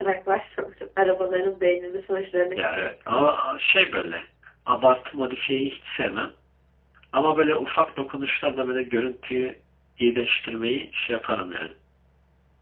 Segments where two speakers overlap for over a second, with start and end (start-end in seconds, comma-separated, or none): none